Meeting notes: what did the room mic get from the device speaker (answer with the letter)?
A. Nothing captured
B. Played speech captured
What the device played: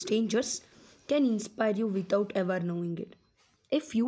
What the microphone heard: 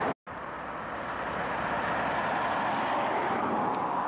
A